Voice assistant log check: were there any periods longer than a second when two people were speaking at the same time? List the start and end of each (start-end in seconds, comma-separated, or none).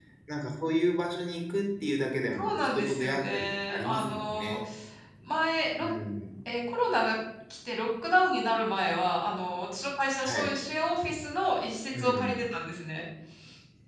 2.4-4.6